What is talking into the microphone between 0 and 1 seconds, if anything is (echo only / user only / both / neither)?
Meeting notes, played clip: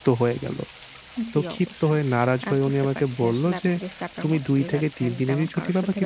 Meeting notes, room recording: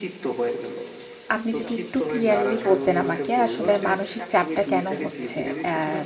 echo only